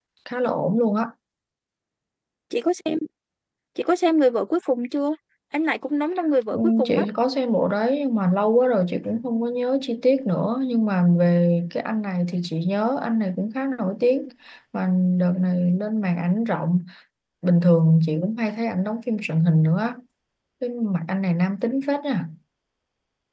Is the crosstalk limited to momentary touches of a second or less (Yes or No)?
Yes